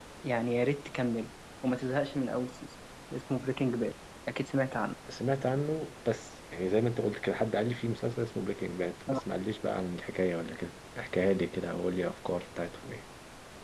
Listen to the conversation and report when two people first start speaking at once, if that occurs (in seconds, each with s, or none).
none